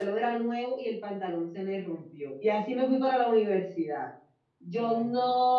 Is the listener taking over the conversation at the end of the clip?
No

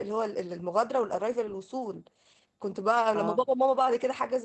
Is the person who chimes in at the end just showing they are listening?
Yes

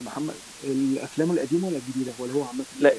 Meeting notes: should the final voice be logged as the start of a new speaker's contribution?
Yes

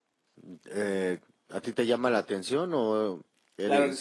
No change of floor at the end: No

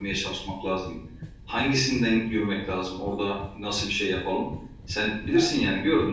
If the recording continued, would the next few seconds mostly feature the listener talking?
No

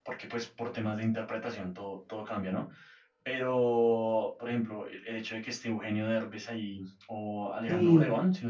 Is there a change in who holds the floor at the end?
No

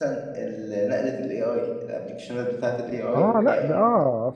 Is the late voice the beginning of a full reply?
Yes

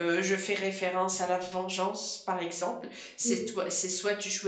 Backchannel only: Yes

